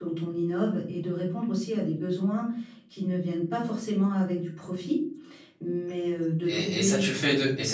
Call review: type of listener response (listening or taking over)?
taking over